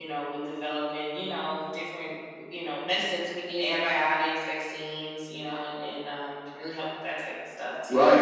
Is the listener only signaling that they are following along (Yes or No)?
No